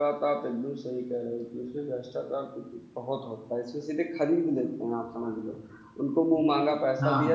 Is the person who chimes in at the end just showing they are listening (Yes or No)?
Yes